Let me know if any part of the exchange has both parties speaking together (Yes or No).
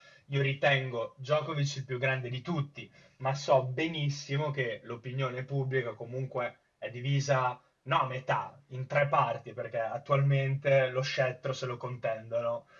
No